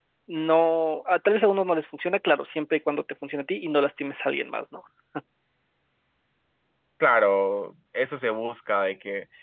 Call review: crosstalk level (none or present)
none